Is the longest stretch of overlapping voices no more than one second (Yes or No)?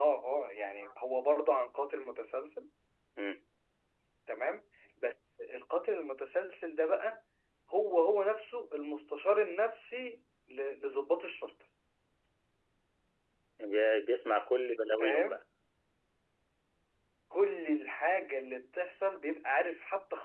Yes